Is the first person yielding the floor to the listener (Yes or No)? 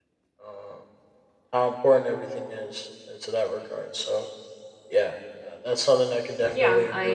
Yes